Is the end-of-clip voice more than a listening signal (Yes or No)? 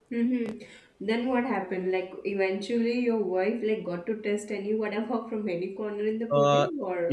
Yes